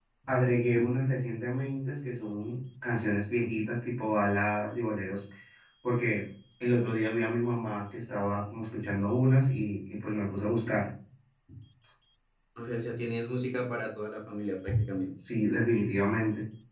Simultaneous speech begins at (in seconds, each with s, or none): none